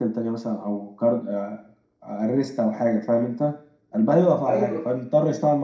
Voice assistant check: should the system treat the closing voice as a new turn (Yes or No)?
No